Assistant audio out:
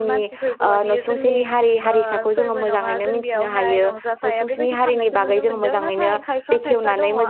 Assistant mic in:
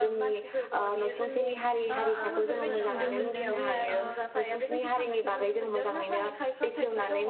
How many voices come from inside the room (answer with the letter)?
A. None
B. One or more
B